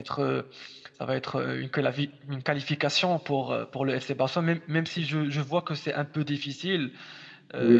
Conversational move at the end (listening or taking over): taking over